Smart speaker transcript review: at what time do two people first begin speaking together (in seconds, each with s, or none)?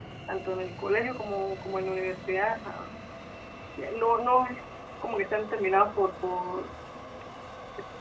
none